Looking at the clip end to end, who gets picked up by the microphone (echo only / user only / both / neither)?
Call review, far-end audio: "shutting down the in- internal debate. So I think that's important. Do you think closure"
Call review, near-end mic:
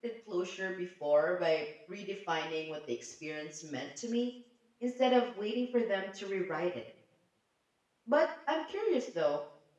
user only